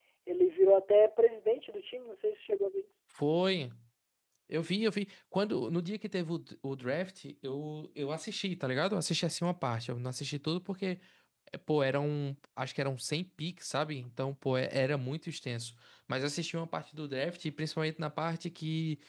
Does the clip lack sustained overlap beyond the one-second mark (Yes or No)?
Yes